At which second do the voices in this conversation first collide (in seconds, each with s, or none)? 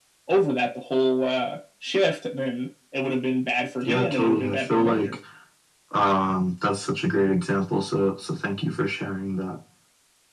3.8 s